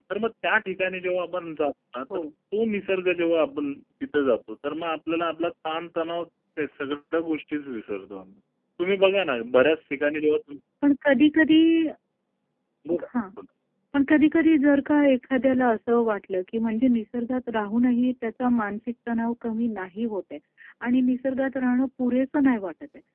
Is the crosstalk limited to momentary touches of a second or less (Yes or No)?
Yes